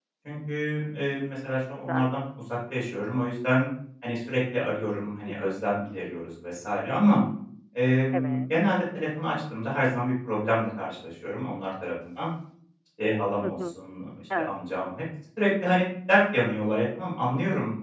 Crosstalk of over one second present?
No

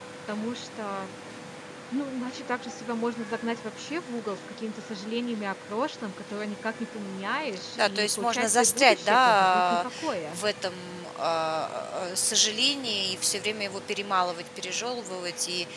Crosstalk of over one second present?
Yes, from 7.8 s

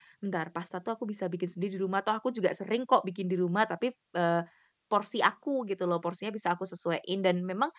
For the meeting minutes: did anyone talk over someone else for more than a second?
No

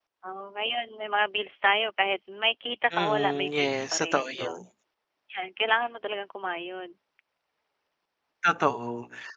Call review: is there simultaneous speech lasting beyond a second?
Yes, from 2.9 s

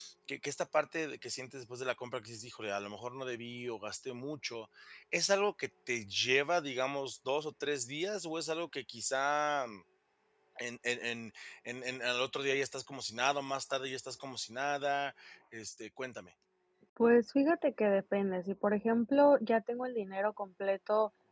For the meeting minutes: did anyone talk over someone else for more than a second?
No

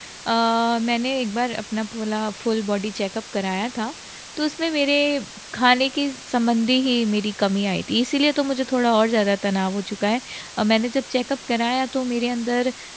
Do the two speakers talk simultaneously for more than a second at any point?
No

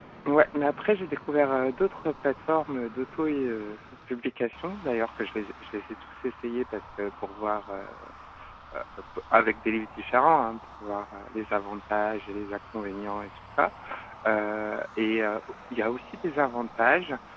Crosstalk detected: No

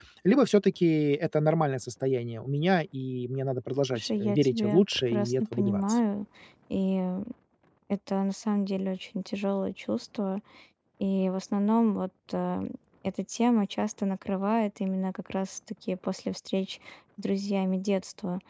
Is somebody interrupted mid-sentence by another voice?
Yes, from 3.9 s

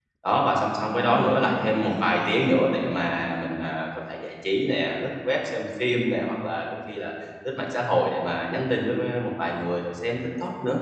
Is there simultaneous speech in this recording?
Yes, from 0.8 s

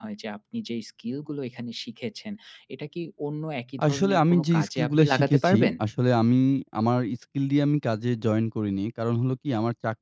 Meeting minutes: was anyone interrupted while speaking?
Yes, from 3.8 s

